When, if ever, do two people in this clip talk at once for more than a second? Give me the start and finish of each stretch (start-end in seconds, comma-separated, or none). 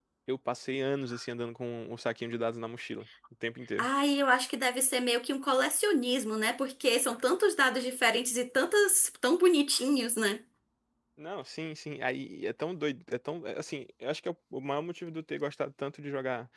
none